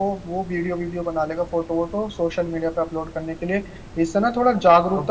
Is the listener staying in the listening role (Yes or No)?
Yes